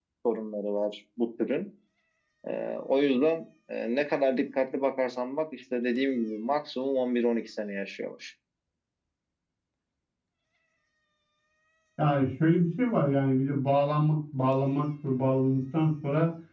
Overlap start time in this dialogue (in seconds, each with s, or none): none